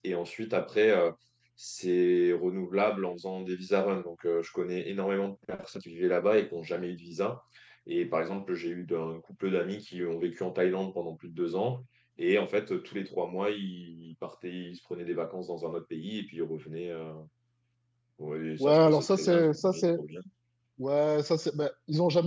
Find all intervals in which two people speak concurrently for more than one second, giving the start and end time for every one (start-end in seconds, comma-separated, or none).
18.6-20.0